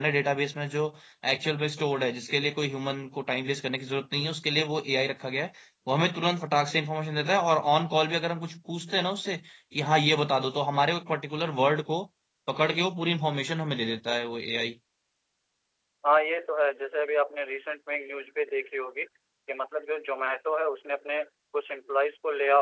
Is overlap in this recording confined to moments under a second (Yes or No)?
Yes